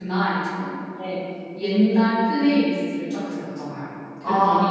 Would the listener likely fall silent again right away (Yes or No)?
Yes